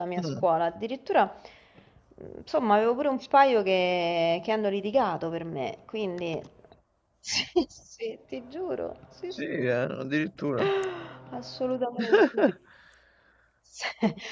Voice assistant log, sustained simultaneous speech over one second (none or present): none